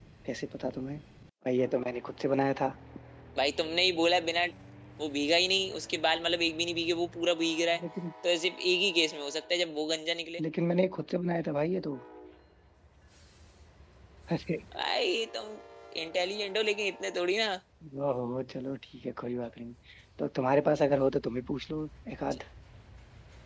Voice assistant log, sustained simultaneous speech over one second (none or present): none